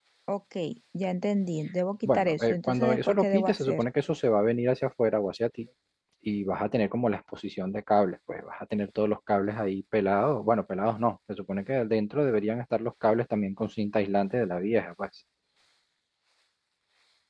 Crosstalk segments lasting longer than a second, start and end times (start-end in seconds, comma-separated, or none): 2.0-3.8